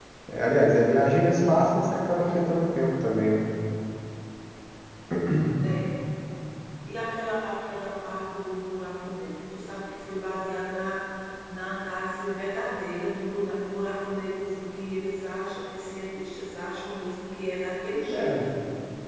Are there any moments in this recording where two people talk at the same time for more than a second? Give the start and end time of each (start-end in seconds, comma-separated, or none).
none